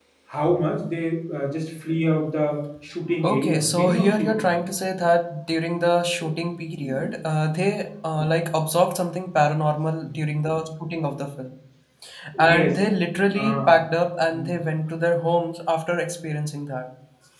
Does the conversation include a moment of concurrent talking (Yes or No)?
Yes